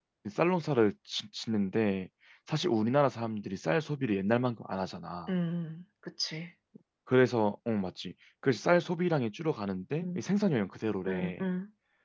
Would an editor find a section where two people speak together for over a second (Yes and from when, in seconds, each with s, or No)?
No